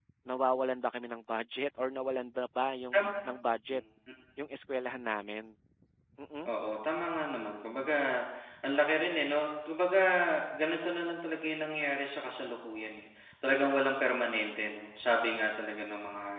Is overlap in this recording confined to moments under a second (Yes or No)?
Yes